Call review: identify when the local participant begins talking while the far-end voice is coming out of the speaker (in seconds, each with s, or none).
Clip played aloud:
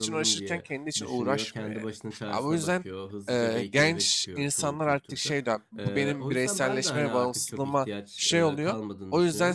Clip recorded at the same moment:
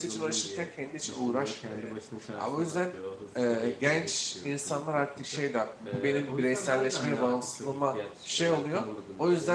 none